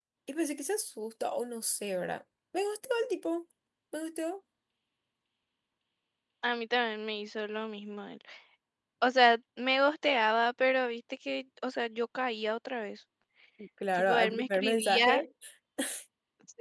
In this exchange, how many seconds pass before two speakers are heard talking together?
14.0 s

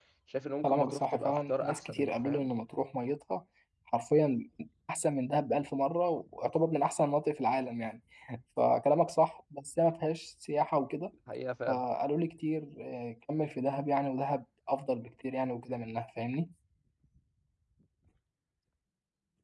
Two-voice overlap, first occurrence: 0.6 s

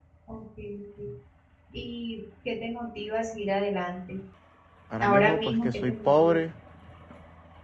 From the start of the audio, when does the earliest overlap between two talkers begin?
5.0 s

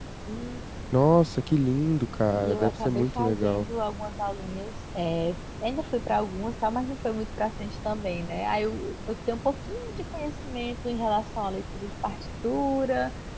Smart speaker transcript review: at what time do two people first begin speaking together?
2.4 s

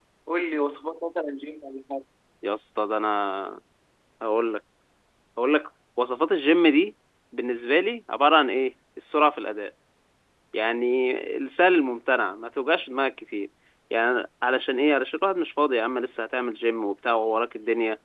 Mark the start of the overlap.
none

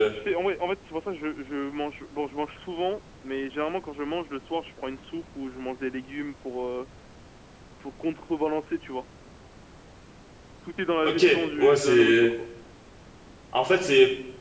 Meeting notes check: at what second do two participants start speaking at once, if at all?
11.0 s

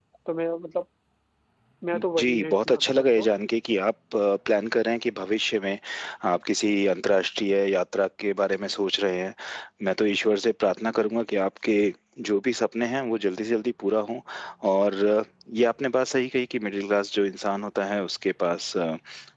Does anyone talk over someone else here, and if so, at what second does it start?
1.9 s

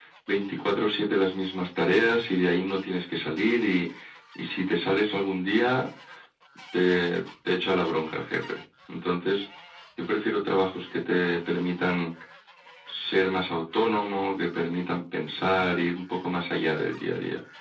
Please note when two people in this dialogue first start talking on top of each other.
none

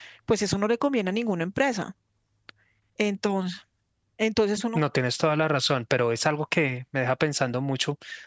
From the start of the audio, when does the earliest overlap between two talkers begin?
none

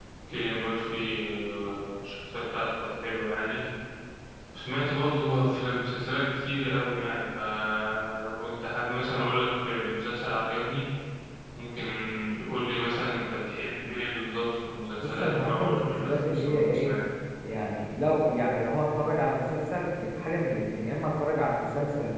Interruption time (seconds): 15.0 s

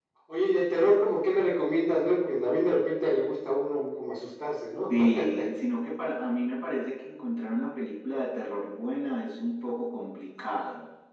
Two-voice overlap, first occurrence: none

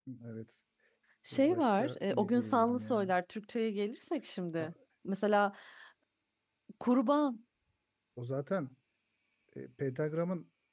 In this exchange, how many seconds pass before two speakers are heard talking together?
1.3 s

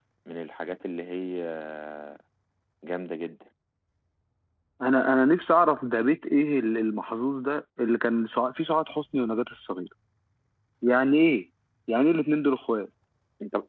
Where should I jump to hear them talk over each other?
none

